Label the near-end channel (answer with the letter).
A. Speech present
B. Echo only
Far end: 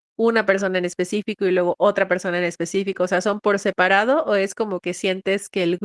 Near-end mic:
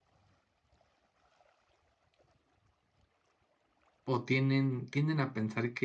A